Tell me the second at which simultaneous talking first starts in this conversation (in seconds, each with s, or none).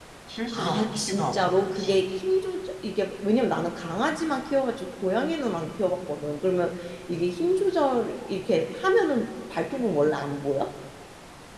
0.5 s